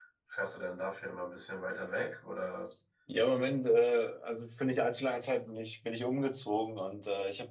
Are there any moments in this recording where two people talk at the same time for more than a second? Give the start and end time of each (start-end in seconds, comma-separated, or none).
none